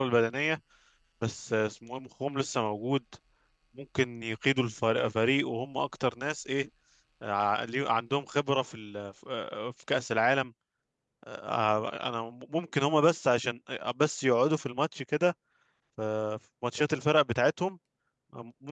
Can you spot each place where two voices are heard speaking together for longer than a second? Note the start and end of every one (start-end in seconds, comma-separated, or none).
none